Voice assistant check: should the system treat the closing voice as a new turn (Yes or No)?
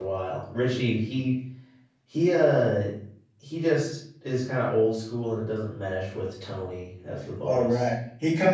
Yes